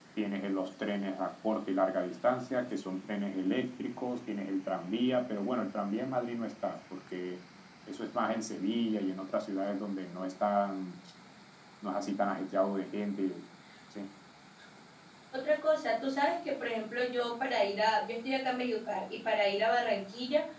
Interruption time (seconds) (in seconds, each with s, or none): none